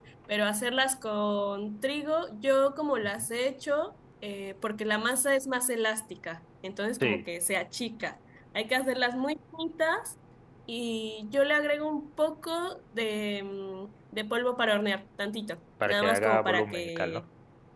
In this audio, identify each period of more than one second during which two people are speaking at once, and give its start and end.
15.8-17.2

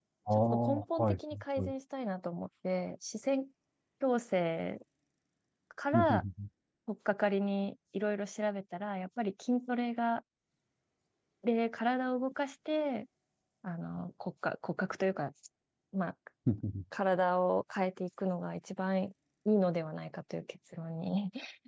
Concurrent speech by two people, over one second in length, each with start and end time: 0.5-1.7

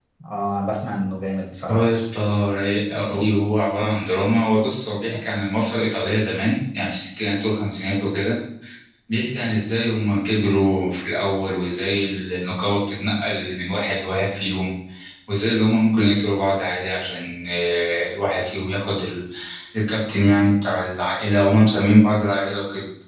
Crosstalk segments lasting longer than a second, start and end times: none

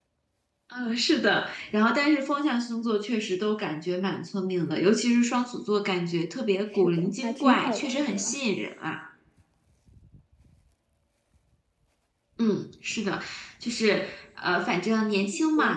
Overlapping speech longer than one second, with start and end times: 6.7-8.4

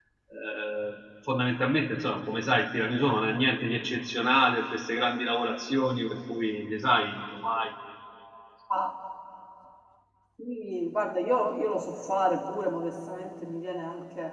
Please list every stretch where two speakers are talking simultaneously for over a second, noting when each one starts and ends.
none

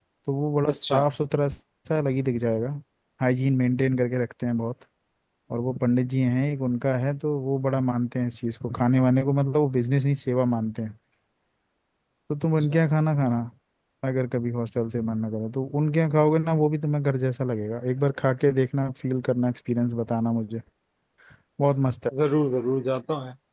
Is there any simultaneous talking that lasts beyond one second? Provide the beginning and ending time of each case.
none

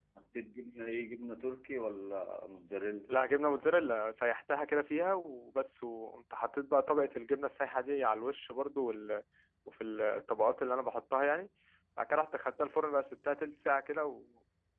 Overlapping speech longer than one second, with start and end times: none

